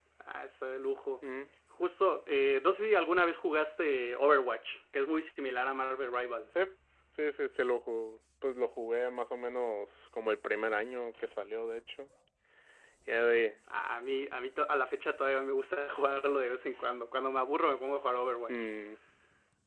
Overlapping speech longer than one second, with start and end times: none

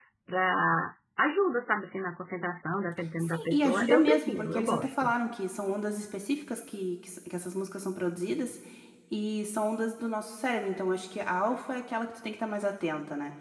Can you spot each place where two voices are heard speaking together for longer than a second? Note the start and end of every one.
3.2-5.1

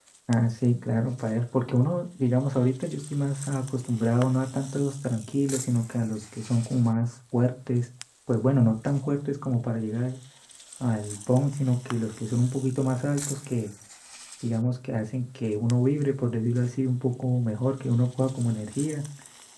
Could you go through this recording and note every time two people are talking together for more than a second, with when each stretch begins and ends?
none

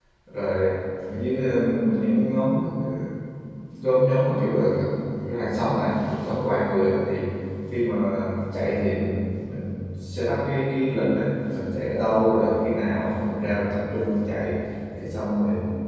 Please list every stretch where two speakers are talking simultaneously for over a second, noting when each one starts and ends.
none

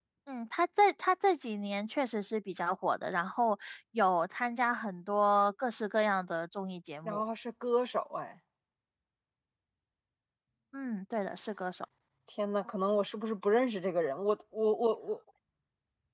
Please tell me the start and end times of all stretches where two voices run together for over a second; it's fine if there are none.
none

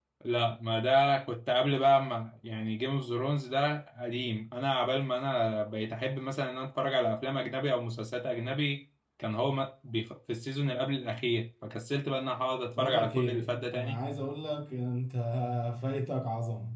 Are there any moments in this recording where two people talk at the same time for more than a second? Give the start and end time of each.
12.8-14.0

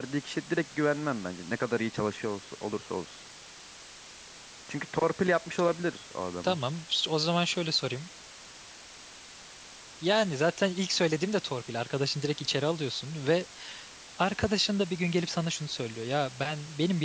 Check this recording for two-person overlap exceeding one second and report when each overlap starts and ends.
none

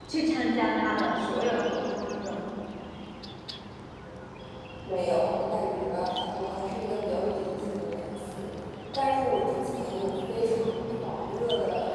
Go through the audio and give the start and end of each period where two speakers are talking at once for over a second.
none

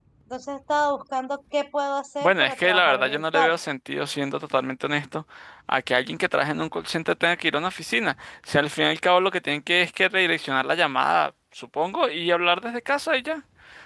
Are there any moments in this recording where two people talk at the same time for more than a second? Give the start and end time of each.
2.2-3.5

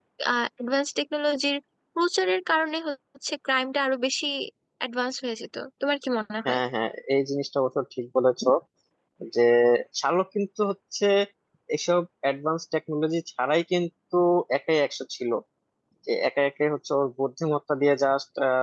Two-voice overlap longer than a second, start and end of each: none

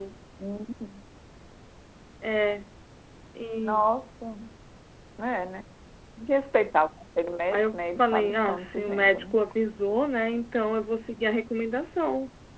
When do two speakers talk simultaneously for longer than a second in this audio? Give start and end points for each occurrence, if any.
7.5-9.3

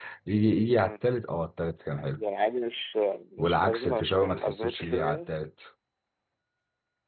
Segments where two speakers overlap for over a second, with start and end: 3.4-5.3

